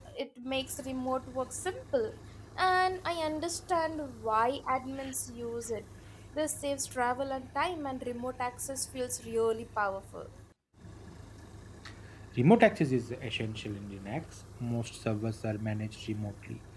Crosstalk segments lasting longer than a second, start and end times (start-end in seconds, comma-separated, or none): none